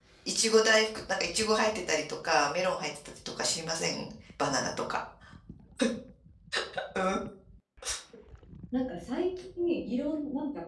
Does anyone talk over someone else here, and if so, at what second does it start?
none

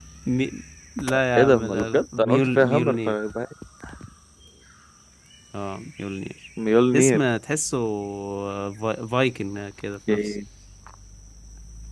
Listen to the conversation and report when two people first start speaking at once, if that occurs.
1.4 s

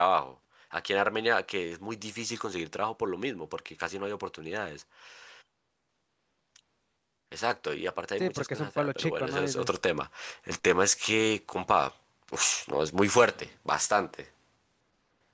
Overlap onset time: 8.2 s

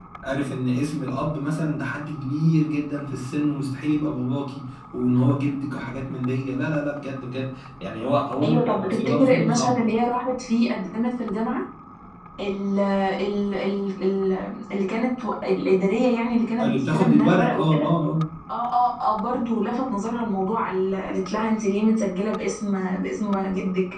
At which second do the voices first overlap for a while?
8.4 s

